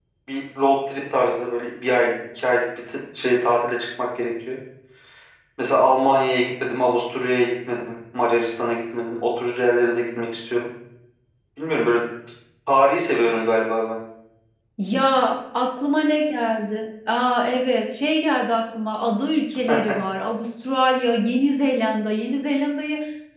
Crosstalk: none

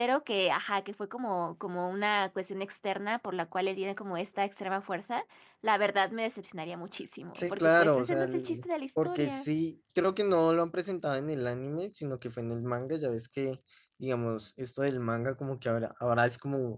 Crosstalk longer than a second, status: present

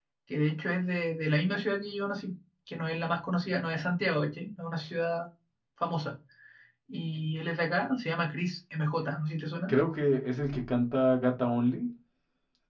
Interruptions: none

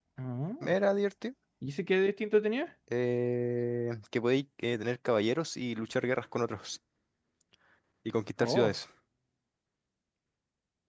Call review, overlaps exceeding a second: none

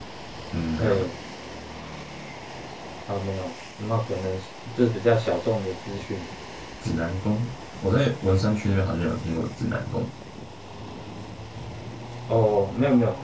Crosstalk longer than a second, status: none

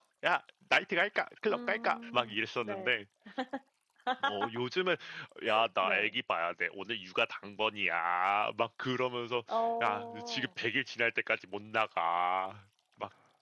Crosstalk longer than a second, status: present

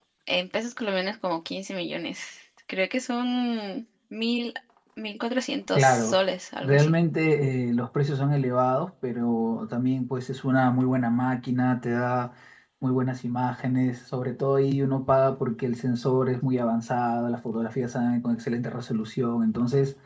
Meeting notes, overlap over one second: none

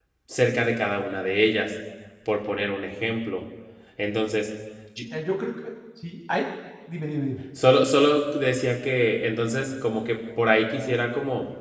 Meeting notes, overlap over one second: none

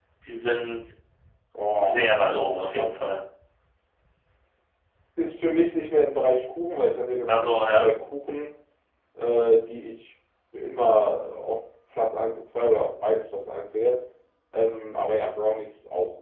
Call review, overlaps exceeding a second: present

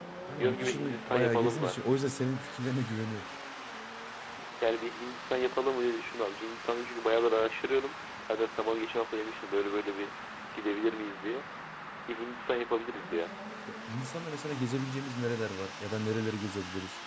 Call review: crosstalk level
present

